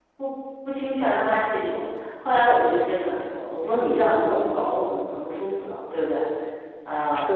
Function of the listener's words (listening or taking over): listening